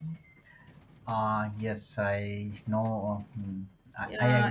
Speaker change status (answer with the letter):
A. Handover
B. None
A